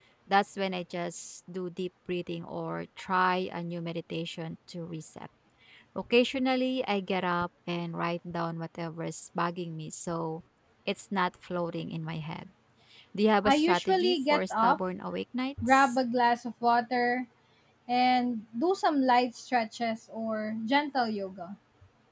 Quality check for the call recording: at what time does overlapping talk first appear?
13 s

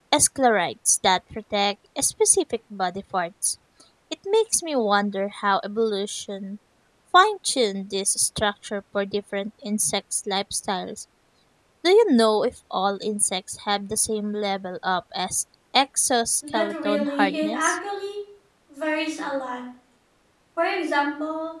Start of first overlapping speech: 16 s

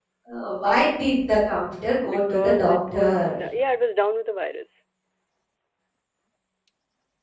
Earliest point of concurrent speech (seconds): 2 s

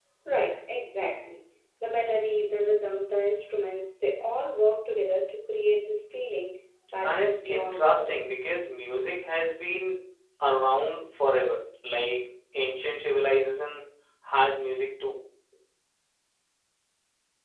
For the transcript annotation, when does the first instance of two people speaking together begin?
7 s

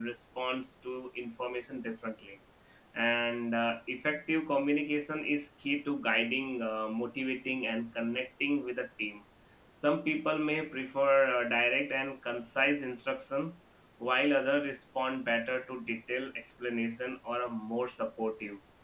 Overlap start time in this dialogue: none

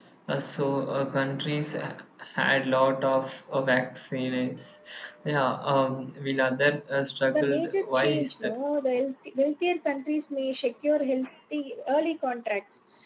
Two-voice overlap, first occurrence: 7 s

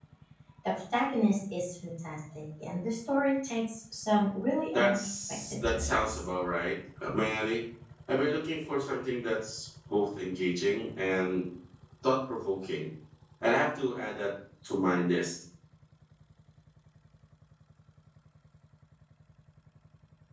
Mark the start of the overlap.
5 s

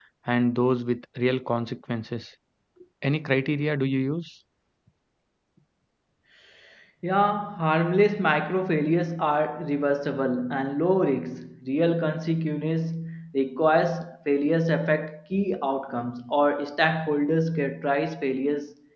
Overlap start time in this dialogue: none

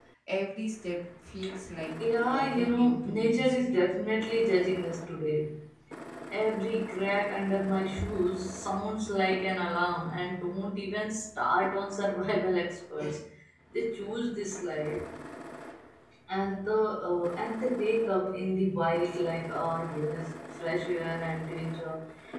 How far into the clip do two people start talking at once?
2 s

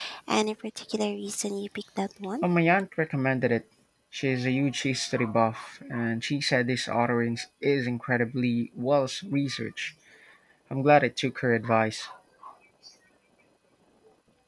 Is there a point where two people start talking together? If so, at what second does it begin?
none

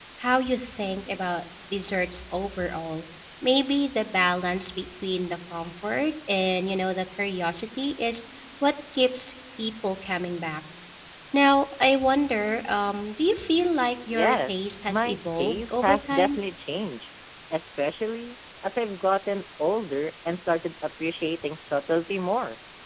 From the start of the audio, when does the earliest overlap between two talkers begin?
14 s

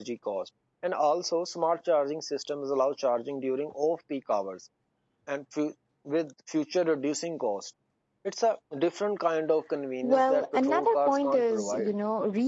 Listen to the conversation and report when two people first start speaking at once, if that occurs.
10 s

